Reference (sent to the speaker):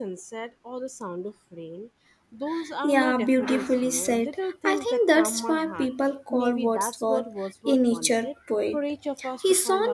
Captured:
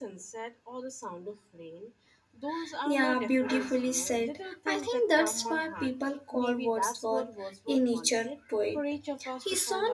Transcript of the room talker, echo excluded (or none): none